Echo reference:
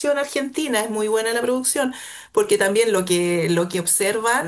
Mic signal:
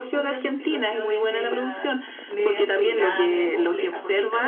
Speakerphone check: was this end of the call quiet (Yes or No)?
No